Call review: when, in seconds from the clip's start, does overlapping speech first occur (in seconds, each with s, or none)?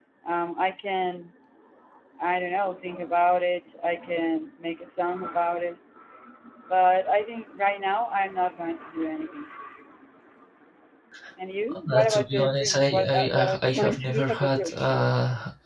11.9 s